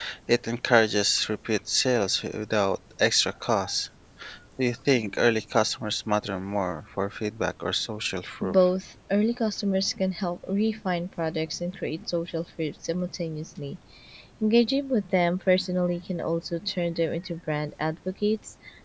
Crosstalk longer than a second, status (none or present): none